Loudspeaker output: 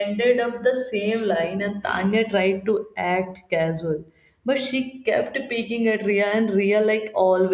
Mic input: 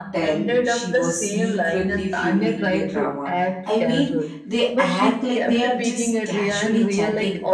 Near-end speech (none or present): present